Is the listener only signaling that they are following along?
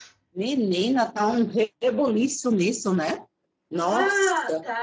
No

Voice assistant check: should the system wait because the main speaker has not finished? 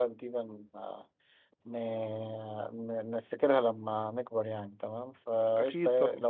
Yes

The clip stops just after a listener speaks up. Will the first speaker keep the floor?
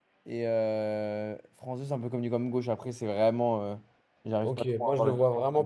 No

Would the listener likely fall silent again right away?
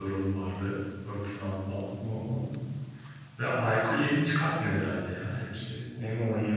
No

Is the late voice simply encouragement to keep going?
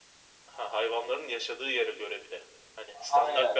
No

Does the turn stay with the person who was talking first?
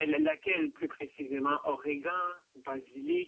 No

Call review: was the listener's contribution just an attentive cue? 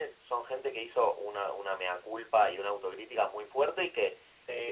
Yes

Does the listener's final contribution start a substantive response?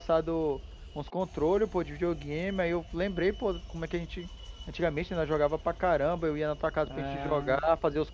No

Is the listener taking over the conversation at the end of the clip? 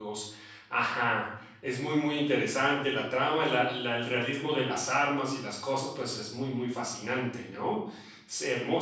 Yes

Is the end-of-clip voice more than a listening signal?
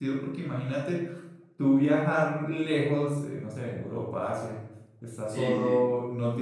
No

